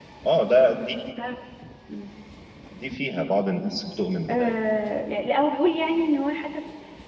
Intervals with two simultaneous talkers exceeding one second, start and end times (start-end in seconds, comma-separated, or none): none